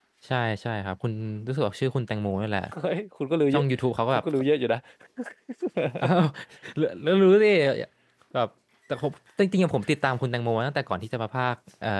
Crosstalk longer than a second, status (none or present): none